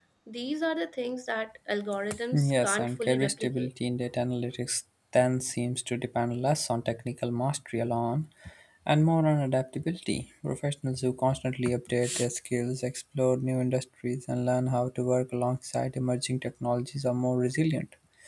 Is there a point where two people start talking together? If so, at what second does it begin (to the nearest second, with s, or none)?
2 s